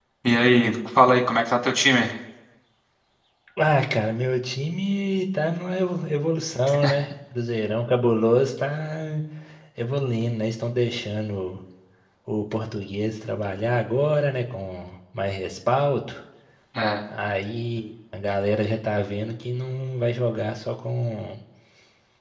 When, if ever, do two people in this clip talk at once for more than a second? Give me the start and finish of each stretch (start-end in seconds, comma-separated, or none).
none